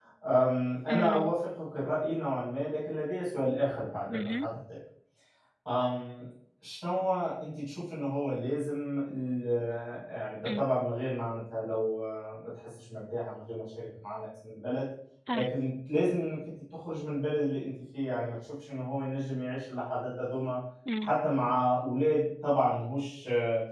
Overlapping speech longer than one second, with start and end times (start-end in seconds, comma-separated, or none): none